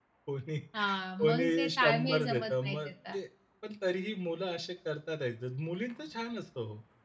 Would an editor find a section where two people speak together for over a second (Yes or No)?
Yes